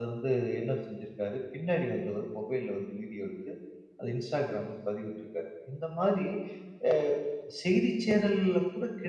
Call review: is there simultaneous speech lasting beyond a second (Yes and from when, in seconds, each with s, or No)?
No